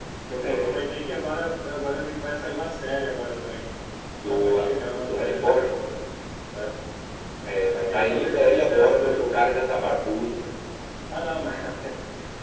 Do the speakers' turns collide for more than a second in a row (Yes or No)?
Yes